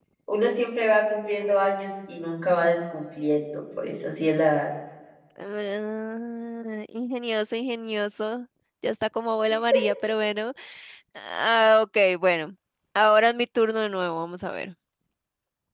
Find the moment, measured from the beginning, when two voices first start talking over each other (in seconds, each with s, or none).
none